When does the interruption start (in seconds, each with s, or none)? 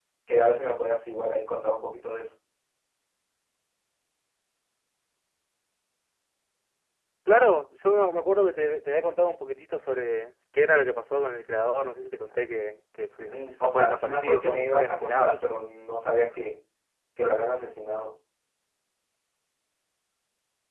13.2 s